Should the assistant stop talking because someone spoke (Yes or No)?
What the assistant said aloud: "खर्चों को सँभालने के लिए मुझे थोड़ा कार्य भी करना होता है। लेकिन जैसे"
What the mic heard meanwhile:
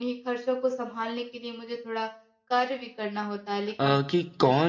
Yes